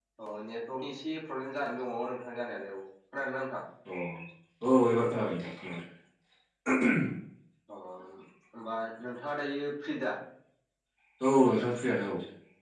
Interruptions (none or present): none